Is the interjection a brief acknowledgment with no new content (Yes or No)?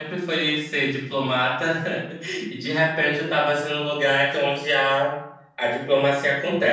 No